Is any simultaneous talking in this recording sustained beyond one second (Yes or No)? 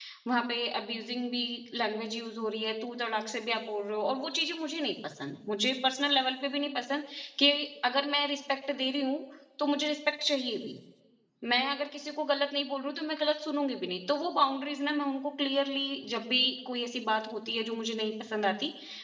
No